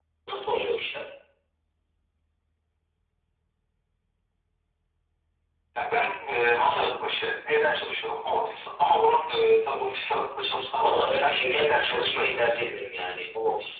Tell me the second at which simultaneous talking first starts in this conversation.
11 s

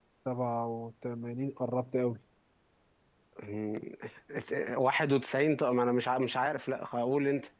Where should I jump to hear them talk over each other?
none

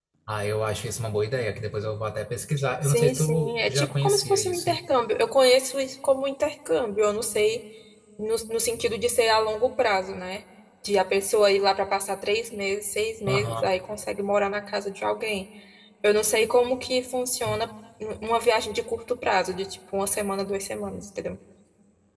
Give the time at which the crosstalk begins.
3 s

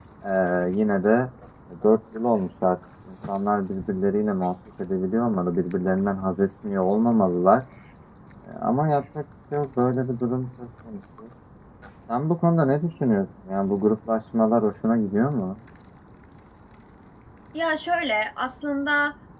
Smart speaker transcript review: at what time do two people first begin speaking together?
none

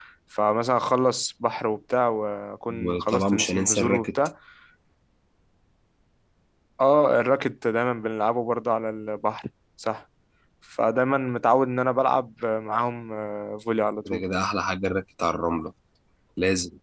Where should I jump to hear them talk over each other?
3 s

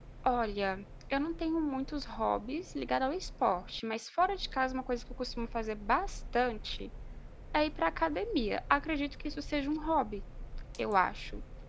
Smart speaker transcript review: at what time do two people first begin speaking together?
none

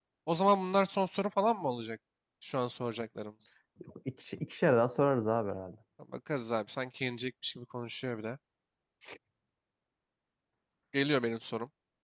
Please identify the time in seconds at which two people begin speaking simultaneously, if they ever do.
none

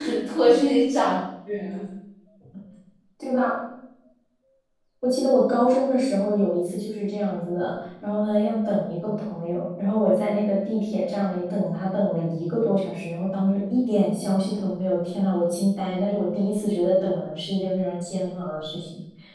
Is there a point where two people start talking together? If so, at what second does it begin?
none

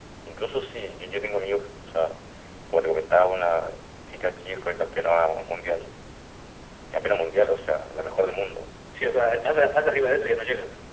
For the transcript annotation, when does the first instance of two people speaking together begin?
none

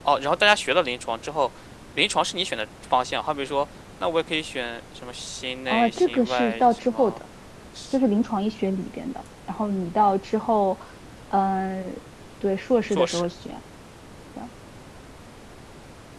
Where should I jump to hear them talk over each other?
6 s

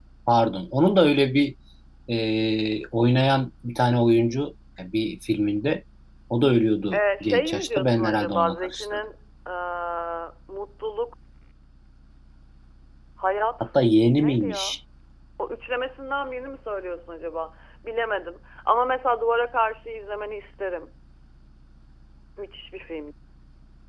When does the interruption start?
7 s

